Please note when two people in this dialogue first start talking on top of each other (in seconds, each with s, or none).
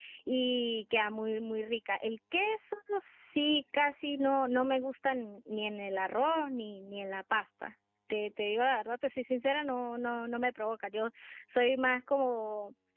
none